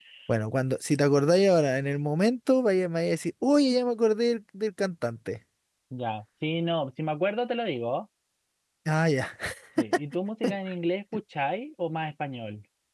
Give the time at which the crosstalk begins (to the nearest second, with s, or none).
none